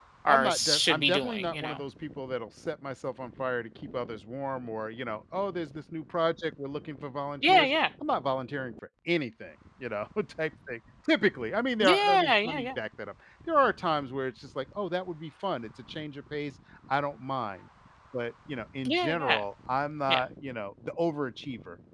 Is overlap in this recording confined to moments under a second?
No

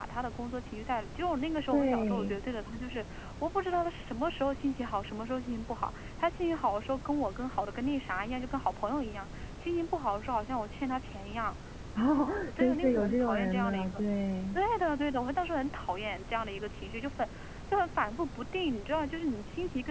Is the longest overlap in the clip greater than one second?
Yes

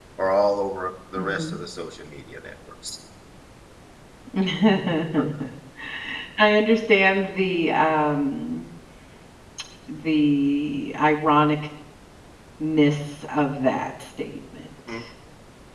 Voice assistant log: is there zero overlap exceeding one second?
Yes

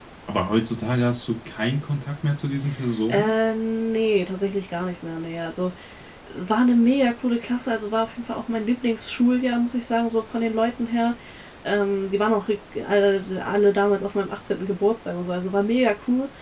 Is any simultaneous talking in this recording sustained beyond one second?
No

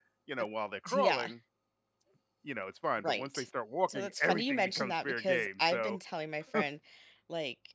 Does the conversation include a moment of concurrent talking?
Yes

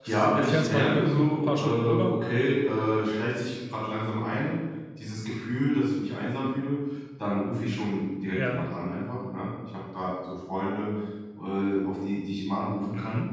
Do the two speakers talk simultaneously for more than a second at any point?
Yes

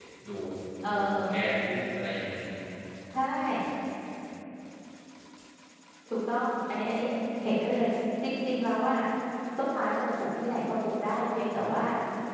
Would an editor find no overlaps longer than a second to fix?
Yes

